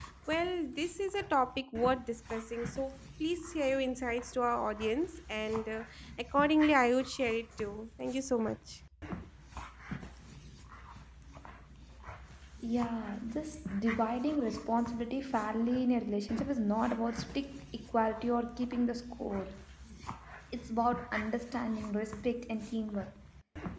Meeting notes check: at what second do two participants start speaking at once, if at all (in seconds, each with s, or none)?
none